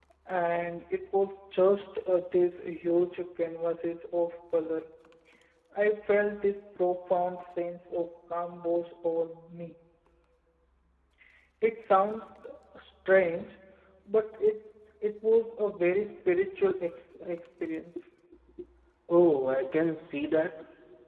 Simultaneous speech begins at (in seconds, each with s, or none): none